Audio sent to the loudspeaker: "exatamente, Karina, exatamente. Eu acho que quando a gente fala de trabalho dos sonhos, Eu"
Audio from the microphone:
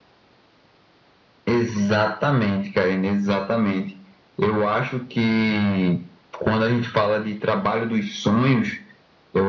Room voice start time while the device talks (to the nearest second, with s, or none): none